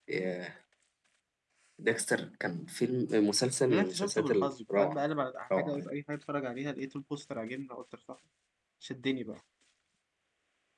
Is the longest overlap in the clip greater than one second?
Yes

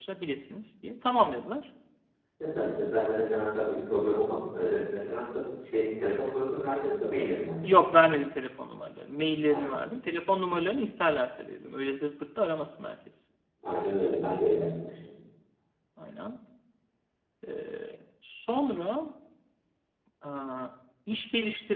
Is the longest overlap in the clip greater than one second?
No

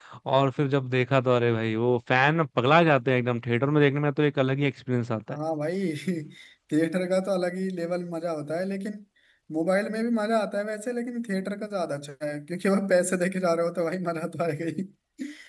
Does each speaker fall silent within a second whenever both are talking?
Yes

